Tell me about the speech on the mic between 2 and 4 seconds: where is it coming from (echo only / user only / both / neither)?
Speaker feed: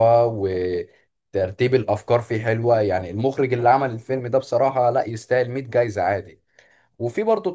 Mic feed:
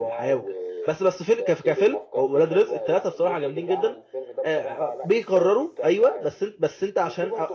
both